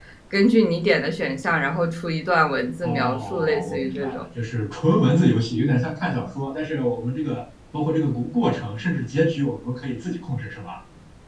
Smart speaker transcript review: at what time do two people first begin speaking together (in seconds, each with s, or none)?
2.8 s